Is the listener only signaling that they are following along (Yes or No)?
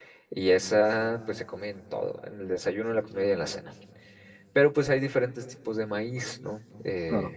Yes